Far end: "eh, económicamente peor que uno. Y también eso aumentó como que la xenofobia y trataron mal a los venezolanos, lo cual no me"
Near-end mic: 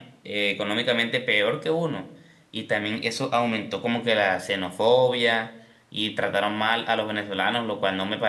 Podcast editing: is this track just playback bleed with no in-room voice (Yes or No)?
Yes